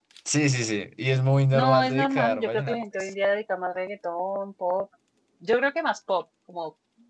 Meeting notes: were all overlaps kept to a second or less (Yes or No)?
No